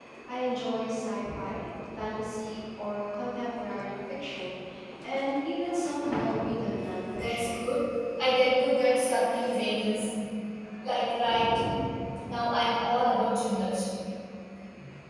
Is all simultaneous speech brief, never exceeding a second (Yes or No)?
Yes